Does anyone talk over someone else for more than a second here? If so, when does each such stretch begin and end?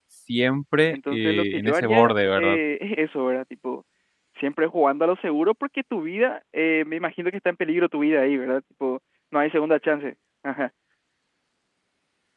0.9-2.6

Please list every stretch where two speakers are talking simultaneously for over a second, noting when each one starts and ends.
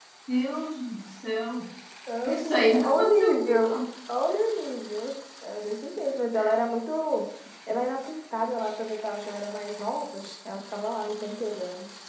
2.2-3.7

